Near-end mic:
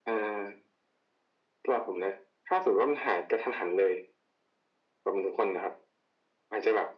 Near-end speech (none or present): none